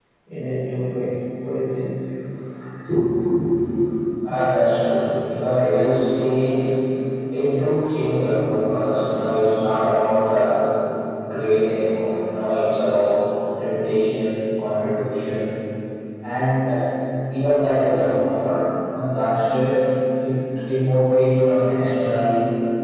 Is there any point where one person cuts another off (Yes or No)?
No